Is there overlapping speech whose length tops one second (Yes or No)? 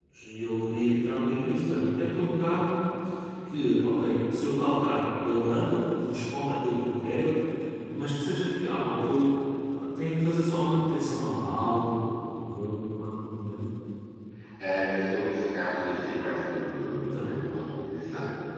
No